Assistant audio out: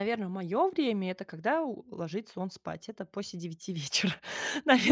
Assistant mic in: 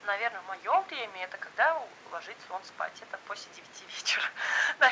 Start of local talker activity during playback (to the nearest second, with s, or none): none